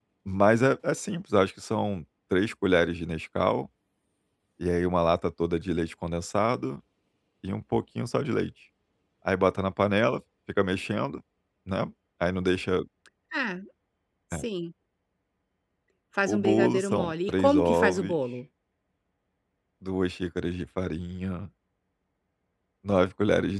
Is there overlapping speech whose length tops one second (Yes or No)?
Yes